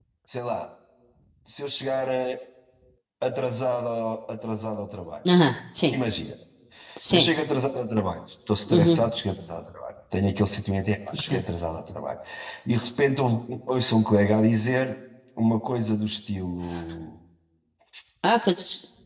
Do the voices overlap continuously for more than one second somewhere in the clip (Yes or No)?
No